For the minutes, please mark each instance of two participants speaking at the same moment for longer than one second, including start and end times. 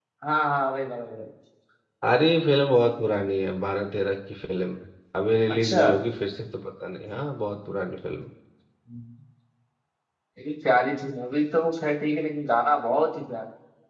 none

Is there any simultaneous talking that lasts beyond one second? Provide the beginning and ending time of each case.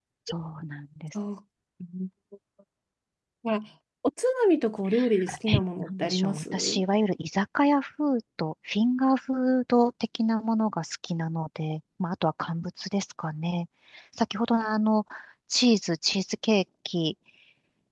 5.5-6.8

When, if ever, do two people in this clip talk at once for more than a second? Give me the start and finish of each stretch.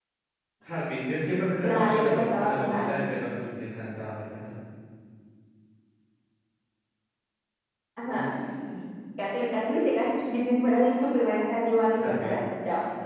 1.6-3.0

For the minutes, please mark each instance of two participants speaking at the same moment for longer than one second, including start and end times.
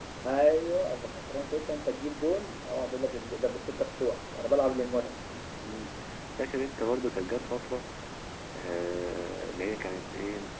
none

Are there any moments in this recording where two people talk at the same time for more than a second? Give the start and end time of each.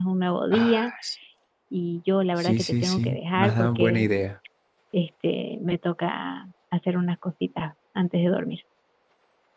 2.4-4.0

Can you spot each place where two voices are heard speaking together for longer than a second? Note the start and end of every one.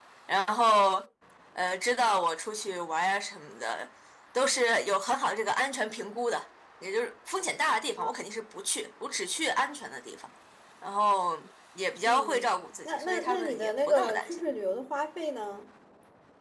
12.8-14.4

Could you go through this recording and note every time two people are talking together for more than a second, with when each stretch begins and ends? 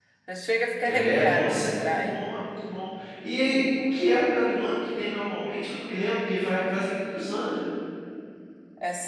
0.9-2.3

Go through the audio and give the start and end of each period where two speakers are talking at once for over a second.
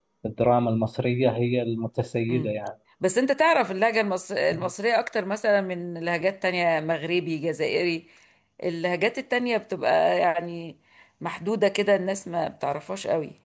none

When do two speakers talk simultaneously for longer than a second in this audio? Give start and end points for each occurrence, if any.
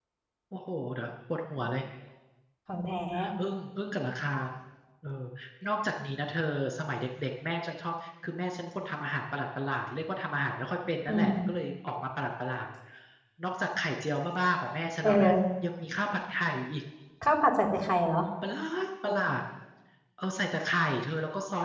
none

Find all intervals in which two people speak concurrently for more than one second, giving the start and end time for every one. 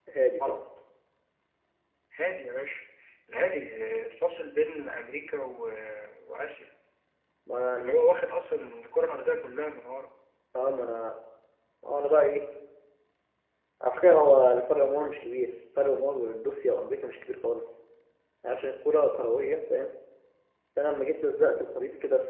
none

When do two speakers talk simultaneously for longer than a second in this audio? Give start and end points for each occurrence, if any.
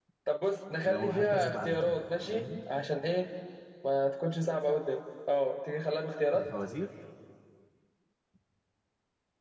0.8-2.4

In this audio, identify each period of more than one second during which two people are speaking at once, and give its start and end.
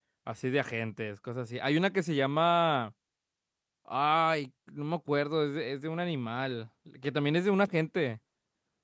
none

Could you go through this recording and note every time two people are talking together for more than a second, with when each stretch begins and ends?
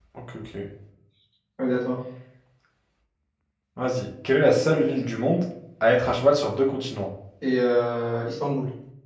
none

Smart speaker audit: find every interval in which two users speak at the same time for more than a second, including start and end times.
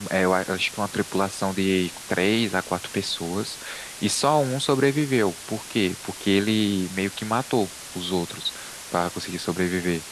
none

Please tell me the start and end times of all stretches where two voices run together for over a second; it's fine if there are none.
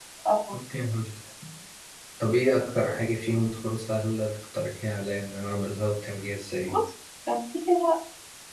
none

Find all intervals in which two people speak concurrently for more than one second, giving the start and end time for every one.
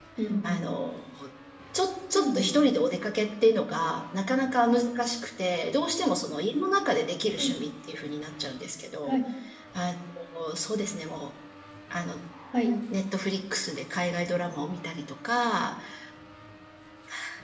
none

